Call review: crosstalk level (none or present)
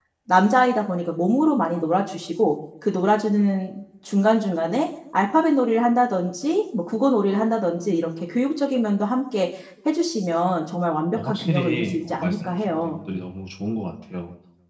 present